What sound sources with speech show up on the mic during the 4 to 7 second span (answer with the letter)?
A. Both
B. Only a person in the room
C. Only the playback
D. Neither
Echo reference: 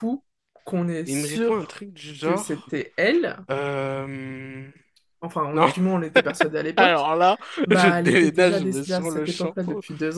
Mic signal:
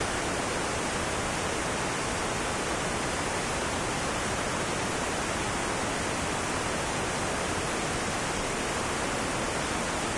D